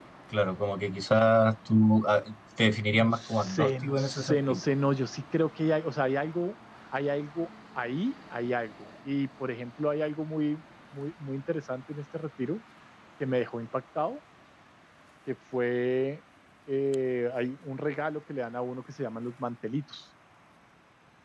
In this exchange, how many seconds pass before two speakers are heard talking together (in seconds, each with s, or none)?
2.9 s